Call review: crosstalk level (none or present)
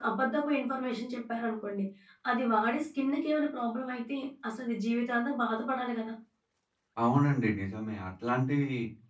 none